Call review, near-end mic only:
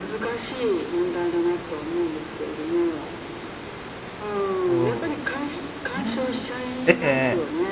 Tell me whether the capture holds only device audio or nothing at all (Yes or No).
No